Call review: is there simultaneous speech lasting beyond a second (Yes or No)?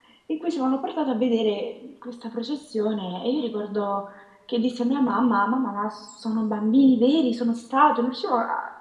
No